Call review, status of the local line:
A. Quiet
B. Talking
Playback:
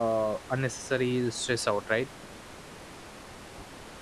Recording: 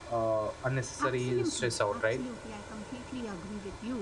B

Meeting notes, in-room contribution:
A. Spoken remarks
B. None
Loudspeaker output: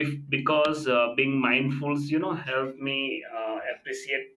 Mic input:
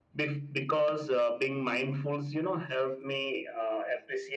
B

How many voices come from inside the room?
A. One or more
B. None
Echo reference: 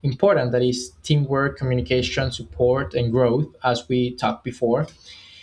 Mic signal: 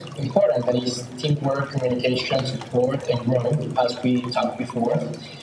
B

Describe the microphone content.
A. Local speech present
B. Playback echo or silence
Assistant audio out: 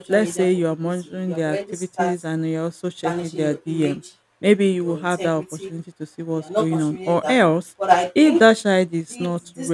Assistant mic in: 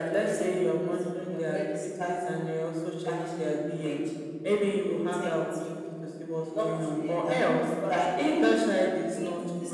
B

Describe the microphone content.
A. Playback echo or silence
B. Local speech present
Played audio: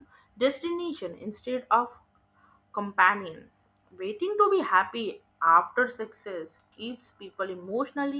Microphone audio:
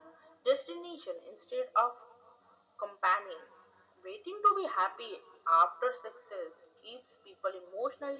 A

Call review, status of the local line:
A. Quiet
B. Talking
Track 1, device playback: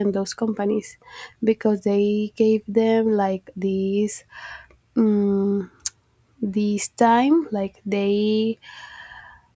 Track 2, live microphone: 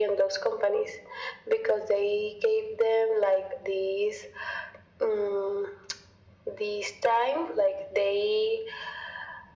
A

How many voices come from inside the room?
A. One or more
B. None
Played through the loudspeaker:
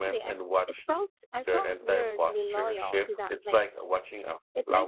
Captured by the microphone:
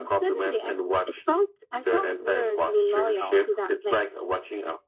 B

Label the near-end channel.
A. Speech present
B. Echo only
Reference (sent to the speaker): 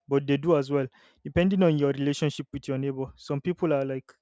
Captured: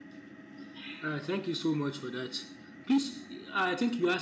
A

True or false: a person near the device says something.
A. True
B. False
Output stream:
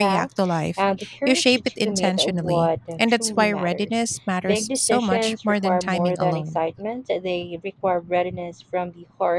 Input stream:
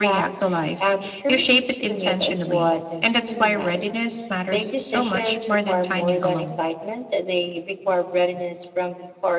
B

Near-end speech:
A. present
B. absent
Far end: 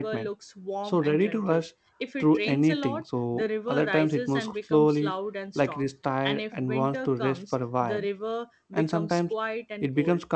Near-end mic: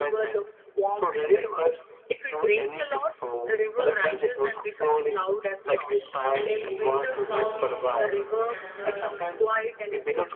A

